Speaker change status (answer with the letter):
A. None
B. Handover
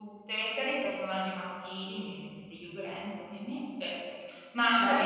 A